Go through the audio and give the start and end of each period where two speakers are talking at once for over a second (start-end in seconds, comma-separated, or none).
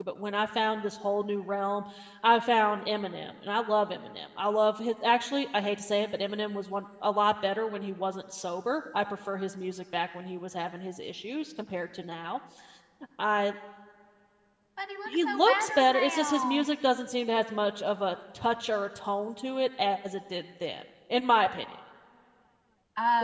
15.1-16.6